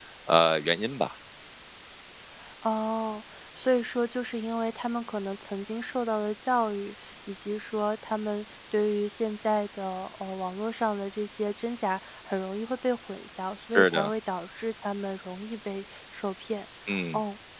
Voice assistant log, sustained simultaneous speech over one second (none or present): none